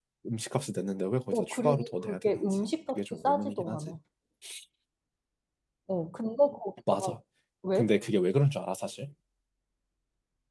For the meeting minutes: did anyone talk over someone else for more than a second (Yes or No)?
Yes